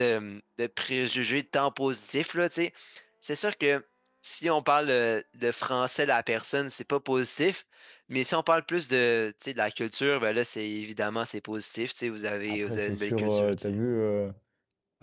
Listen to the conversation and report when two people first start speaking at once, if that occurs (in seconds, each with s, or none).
12.5 s